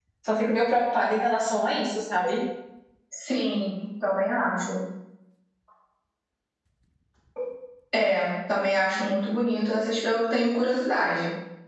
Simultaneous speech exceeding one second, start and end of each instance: none

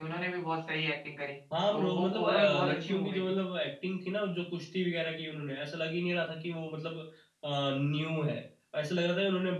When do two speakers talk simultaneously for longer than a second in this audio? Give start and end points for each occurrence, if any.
1.7-3.3

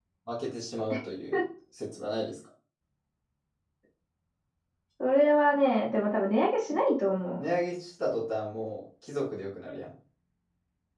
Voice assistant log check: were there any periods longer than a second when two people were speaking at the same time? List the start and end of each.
none

